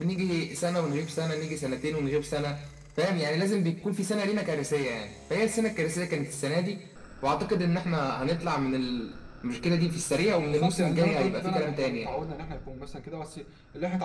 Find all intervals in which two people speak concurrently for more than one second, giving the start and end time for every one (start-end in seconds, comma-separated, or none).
10.4-12.1